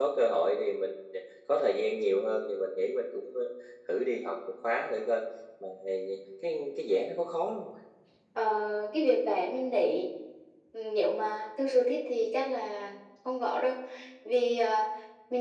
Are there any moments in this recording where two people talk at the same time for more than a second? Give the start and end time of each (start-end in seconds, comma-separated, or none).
none